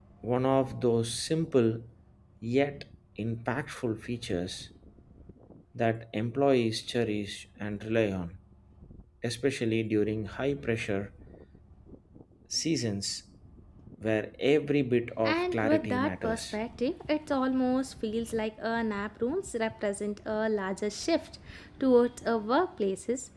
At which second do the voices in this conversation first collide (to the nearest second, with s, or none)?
15 s